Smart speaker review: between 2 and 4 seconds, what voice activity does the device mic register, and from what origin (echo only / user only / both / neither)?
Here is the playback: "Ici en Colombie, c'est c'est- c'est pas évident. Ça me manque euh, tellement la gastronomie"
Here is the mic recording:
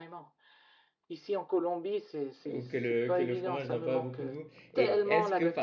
both